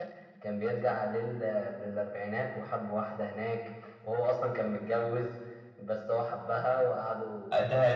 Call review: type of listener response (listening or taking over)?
taking over